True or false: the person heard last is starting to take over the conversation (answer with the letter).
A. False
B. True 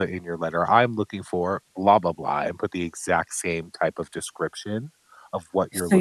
B